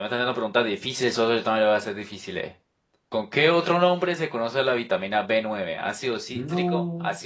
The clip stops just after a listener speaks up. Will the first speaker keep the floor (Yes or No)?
Yes